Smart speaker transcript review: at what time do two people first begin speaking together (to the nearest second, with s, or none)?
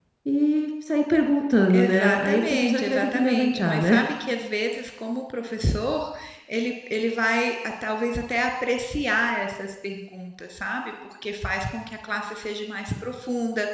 2 s